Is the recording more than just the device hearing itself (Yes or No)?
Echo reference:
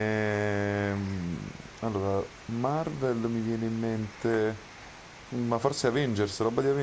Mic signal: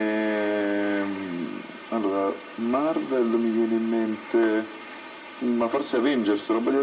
No